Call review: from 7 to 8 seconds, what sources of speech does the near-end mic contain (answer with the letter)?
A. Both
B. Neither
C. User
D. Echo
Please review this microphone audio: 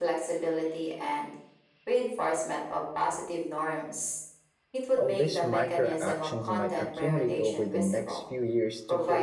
A